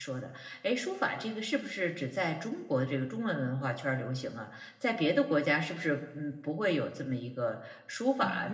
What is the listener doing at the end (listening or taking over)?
taking over